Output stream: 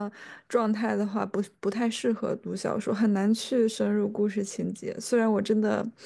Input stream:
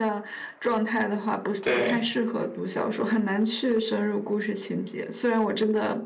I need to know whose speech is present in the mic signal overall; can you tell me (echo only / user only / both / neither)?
both